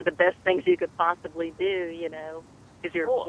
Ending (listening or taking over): listening